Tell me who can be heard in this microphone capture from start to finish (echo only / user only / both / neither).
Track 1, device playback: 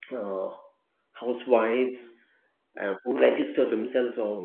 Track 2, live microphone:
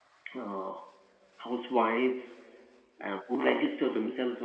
echo only